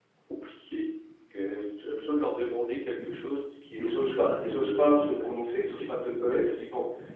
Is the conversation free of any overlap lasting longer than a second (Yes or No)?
No